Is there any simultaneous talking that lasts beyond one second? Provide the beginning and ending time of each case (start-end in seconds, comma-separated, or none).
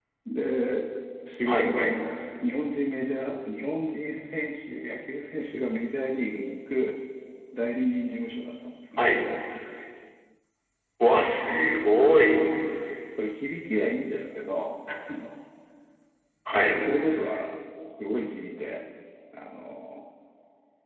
none